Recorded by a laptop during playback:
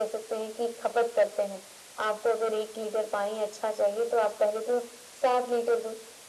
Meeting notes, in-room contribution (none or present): none